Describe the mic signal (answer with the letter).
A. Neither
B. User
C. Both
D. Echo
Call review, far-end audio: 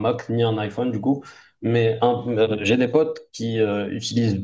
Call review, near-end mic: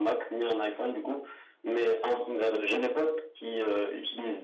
D